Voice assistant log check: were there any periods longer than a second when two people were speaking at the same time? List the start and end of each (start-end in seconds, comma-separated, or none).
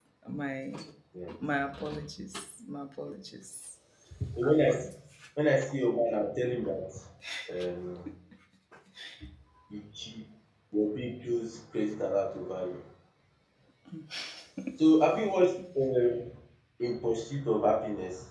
none